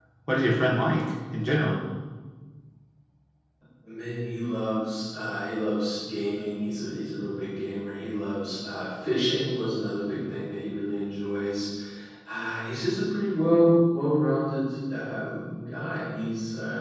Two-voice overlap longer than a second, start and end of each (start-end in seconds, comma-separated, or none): none